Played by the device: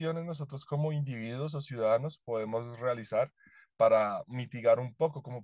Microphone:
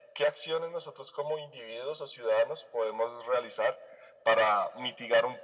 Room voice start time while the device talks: none

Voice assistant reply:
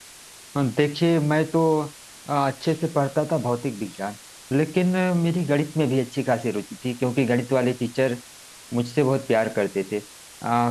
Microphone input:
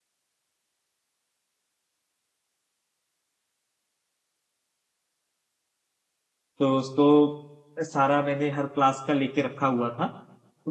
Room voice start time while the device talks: 7 s

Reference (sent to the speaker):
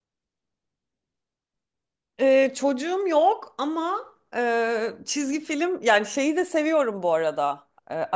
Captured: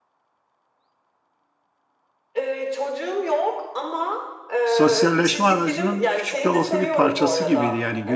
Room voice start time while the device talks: 5 s

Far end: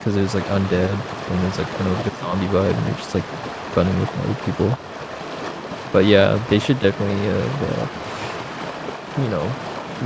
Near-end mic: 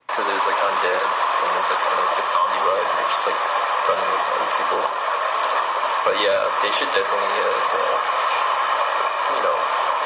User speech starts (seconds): none

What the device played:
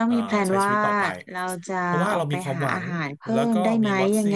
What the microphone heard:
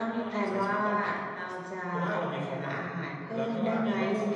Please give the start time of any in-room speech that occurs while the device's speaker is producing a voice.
3 s

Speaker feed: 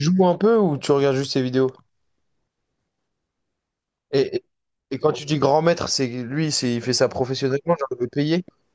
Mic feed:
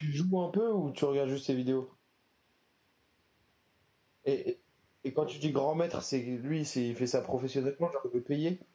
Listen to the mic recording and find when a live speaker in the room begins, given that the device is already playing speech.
none

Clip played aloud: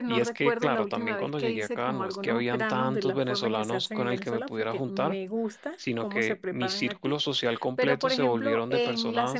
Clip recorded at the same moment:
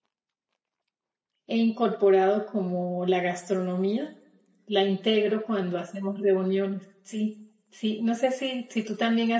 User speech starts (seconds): 1 s

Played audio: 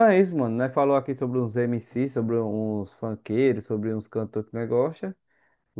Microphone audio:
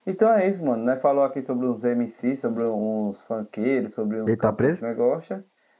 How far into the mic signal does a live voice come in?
4 s

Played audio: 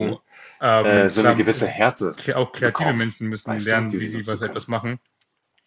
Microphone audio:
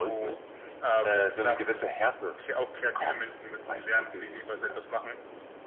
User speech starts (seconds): none

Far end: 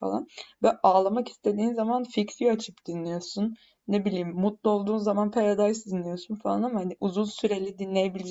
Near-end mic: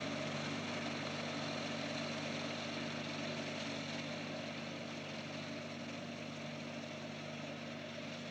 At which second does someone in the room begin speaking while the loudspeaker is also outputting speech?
none

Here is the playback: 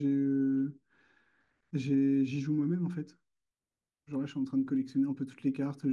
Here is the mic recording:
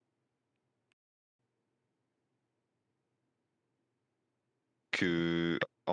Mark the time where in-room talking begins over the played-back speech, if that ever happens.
5 s

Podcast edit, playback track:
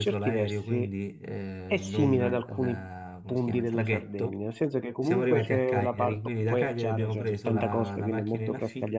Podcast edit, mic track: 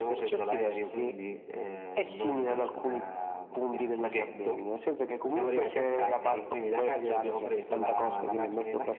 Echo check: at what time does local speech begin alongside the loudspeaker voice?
none

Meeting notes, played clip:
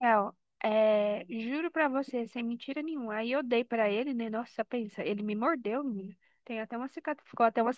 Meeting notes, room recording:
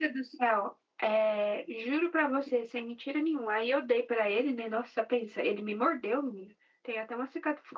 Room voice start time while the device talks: none

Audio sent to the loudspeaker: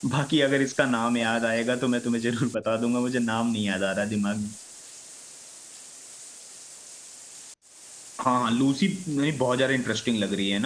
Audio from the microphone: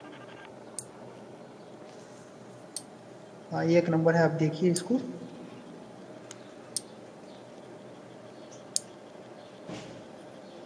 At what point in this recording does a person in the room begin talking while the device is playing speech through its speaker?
4 s

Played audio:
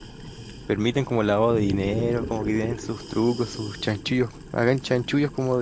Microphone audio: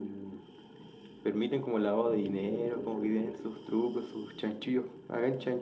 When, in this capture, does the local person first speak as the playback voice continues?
none

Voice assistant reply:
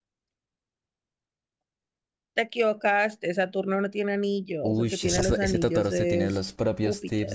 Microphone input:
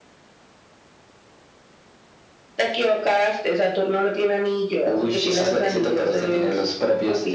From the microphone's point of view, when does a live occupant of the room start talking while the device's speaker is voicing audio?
none

